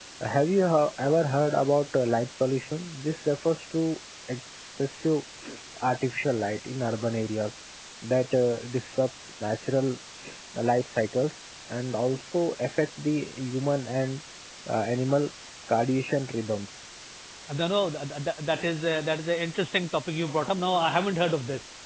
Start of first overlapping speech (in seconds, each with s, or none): none